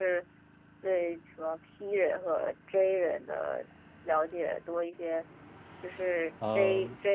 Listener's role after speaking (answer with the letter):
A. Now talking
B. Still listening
B